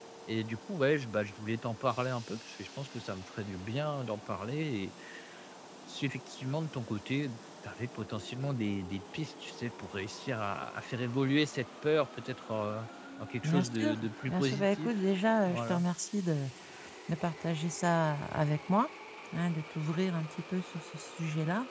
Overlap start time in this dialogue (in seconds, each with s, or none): 13.4 s